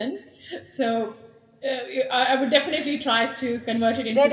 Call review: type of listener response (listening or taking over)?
taking over